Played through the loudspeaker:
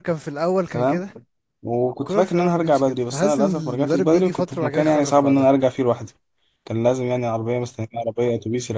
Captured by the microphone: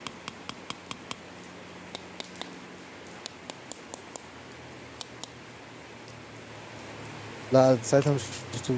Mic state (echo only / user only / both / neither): user only